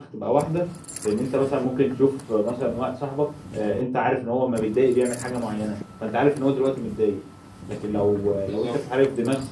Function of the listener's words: listening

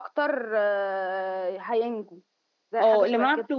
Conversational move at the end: taking over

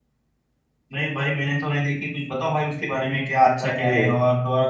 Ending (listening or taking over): listening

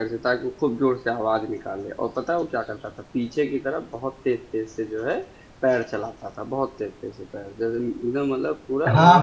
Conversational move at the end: taking over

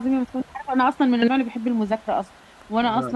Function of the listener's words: listening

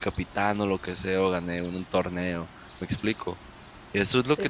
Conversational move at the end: listening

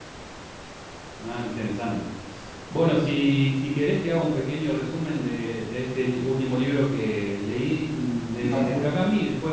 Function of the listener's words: listening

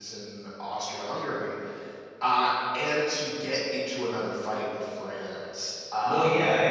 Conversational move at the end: taking over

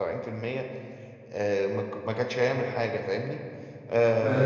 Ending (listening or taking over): listening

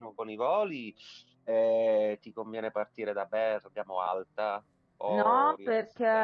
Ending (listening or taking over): taking over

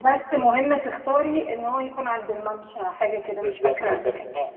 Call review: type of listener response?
taking over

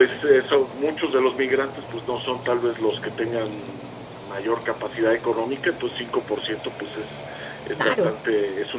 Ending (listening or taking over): listening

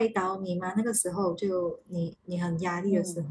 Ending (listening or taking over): taking over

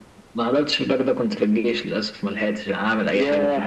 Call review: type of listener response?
taking over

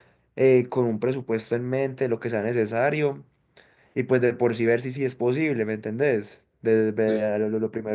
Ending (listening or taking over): listening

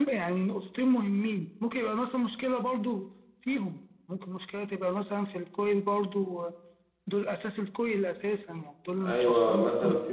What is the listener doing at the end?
taking over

